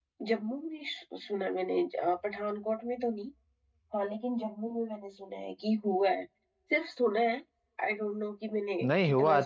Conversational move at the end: taking over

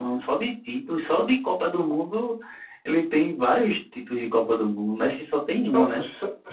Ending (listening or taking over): taking over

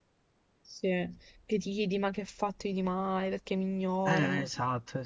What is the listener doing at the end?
taking over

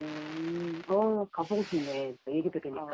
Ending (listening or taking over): taking over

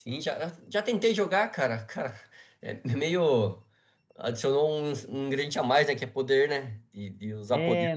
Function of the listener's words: taking over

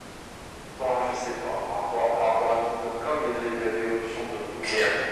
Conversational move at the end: taking over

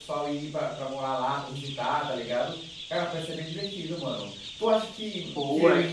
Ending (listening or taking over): listening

